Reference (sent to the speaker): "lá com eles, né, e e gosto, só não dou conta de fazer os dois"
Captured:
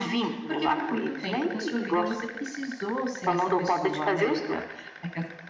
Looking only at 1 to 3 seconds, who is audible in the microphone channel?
both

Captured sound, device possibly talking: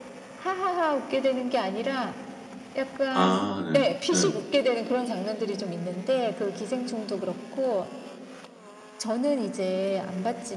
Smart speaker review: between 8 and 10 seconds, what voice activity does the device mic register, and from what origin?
echo only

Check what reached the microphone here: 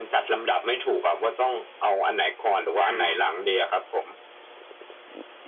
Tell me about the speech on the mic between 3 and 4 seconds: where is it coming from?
both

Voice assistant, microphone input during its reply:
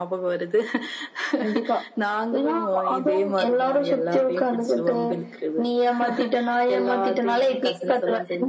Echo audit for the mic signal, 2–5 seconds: echo only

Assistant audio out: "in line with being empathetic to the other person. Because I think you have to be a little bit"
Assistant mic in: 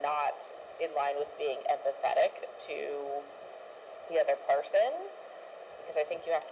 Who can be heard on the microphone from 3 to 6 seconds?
echo only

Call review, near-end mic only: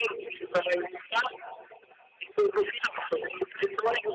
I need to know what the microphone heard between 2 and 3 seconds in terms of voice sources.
echo only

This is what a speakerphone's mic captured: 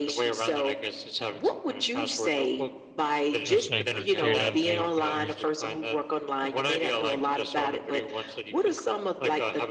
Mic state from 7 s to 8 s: echo only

